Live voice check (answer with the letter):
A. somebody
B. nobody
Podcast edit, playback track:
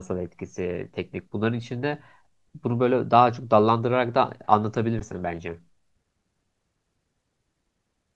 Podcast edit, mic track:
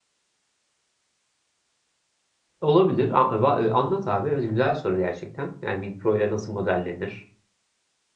A